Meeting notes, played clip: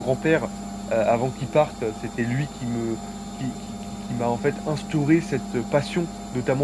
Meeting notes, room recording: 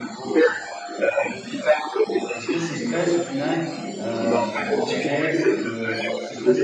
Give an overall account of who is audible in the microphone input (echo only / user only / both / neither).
both